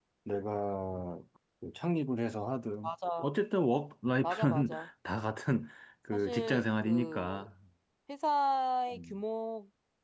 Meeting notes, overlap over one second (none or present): present